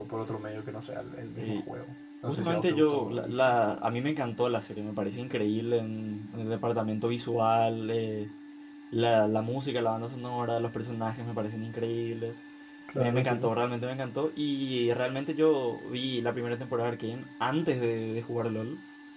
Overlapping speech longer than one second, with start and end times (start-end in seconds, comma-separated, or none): 2.3-3.5